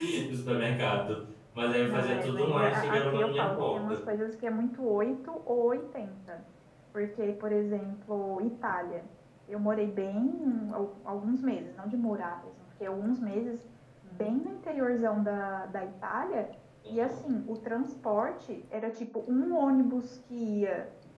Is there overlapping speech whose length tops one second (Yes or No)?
Yes